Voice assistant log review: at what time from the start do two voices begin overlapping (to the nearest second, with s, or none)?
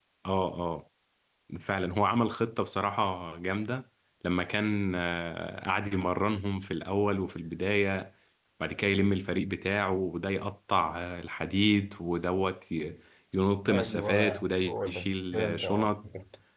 14 s